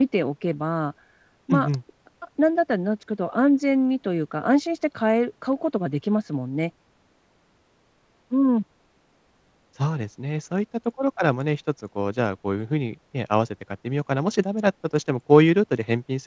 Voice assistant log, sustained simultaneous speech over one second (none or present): none